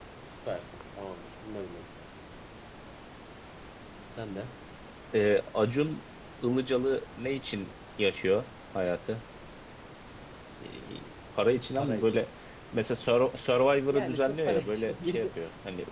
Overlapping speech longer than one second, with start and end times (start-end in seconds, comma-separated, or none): 13.9-15.3